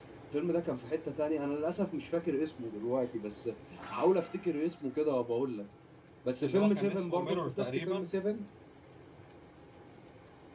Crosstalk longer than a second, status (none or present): present